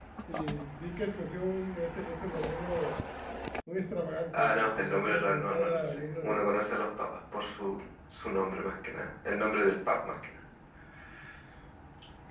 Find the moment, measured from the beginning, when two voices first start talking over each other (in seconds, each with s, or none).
4.4 s